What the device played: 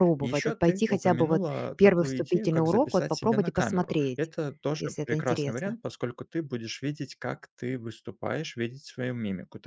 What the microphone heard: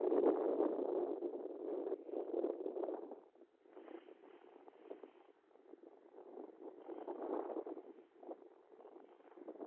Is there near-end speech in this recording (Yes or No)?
No